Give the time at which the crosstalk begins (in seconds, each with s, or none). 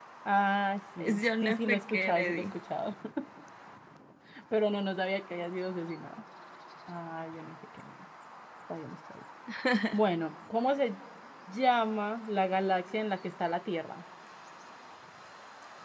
1.0 s